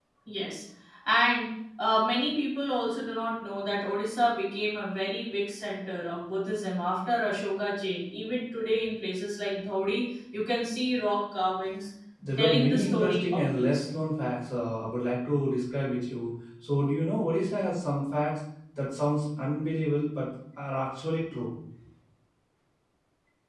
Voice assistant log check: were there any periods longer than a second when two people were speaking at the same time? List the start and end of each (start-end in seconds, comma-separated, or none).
12.4-13.9